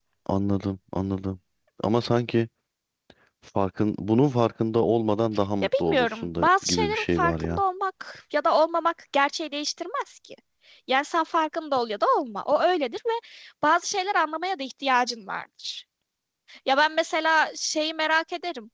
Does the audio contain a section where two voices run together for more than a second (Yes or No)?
Yes